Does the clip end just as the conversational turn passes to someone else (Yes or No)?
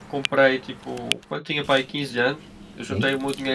No